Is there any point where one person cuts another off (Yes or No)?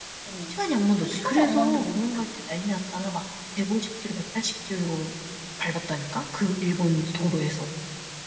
Yes